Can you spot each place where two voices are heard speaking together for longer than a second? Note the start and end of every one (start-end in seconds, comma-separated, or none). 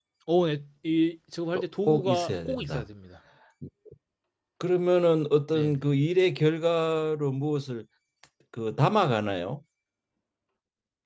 1.5-2.8